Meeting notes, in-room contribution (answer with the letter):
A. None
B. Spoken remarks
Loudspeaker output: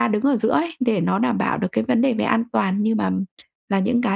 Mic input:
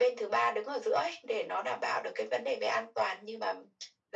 A